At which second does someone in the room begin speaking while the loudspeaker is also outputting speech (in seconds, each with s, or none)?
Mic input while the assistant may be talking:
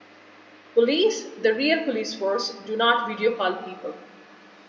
0.7 s